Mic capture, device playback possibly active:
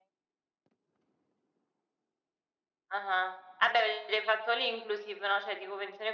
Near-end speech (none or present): none